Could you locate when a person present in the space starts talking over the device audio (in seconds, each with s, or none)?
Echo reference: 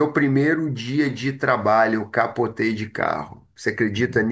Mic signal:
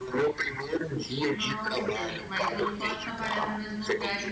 1.3 s